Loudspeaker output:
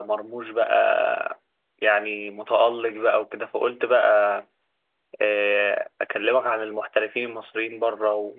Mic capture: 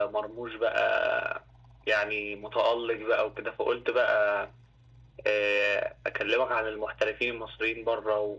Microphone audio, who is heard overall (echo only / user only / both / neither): echo only